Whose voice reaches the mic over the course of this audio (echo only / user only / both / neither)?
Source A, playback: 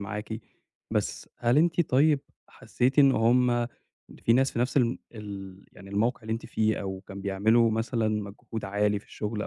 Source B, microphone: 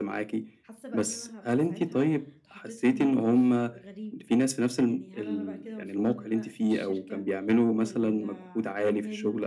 both